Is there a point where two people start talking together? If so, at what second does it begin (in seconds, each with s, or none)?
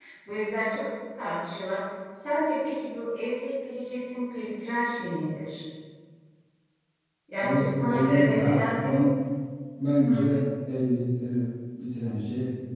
7.4 s